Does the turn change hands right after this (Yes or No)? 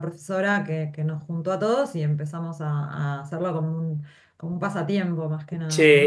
Yes